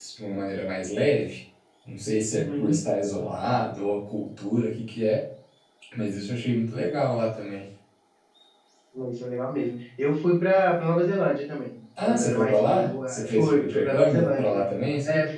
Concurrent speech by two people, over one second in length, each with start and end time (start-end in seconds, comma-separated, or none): 12.0-14.6